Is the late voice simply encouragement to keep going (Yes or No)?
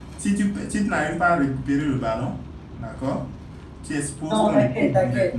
No